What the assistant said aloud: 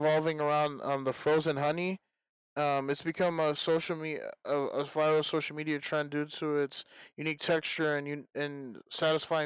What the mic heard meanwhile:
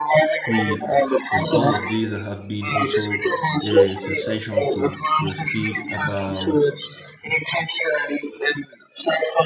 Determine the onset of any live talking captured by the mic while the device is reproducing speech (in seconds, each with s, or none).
0.4 s